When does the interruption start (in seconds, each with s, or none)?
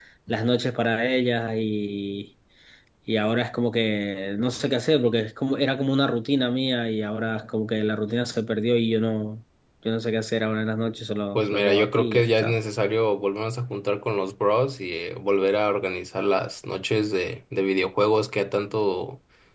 11.3 s